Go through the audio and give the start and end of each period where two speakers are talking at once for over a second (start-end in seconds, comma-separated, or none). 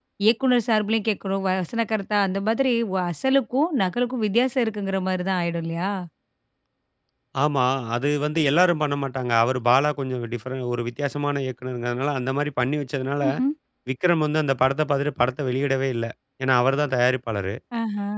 none